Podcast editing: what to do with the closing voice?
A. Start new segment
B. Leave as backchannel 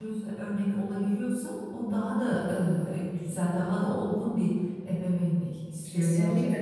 A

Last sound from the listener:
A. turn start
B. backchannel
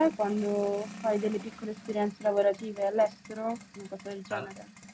A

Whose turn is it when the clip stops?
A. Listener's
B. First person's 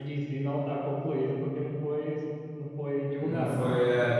A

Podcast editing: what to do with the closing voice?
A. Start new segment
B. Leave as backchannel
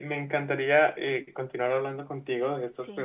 B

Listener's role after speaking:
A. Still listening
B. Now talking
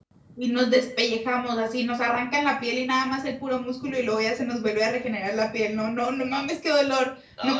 B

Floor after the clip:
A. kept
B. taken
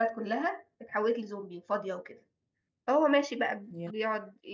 A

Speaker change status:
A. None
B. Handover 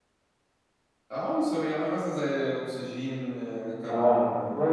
B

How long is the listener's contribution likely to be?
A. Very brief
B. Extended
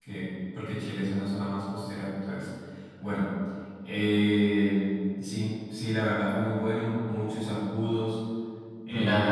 B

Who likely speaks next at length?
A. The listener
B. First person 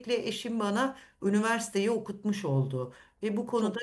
B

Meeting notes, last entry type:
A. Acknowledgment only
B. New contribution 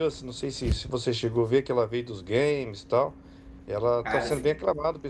A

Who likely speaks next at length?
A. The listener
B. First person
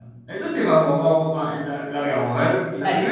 B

